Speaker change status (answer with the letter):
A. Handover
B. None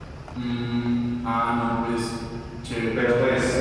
A